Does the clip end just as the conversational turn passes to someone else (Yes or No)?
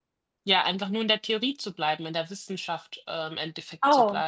Yes